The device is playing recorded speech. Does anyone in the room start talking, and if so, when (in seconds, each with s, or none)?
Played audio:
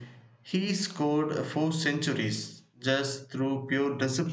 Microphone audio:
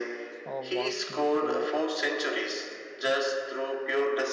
0.4 s